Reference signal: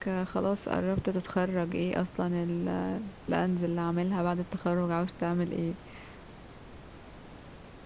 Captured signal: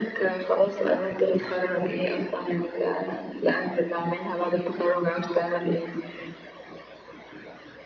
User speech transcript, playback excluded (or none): none